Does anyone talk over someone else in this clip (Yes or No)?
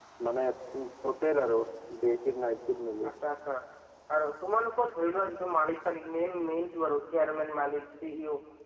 No